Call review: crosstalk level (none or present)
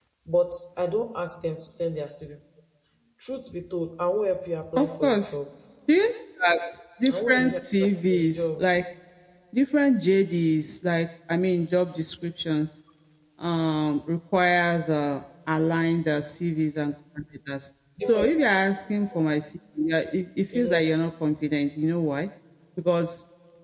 present